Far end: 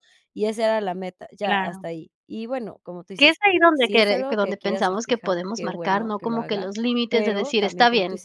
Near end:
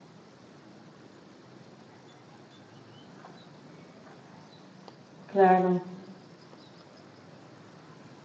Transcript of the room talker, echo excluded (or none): claro.